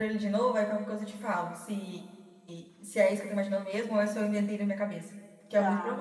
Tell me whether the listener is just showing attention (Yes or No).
No